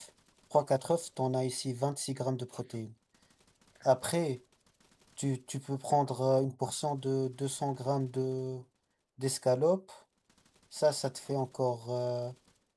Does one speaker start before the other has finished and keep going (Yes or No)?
No